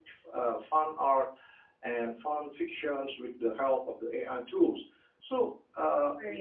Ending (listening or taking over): listening